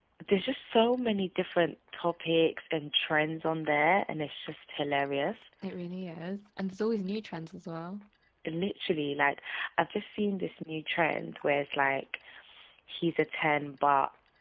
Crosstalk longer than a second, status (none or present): none